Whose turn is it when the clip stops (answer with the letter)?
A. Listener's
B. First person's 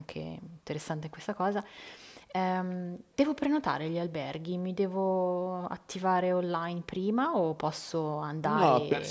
A